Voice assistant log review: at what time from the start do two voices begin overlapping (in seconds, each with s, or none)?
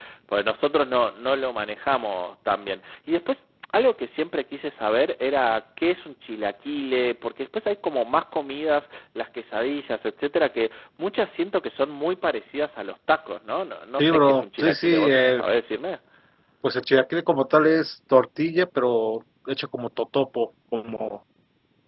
14.0 s